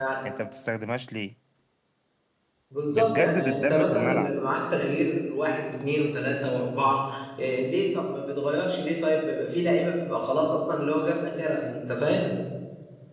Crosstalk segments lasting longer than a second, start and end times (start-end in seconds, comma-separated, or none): 2.9-4.3